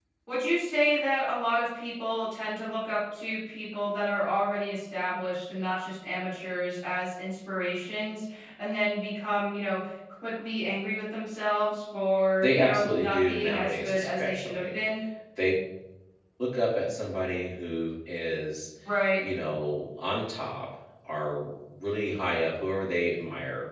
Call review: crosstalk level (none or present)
present